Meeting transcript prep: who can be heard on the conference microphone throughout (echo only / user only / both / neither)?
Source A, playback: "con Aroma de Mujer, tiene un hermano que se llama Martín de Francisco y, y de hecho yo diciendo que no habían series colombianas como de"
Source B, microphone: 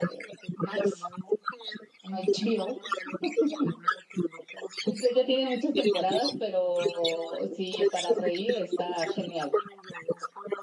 both